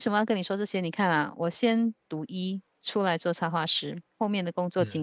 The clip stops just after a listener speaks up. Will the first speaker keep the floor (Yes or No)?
Yes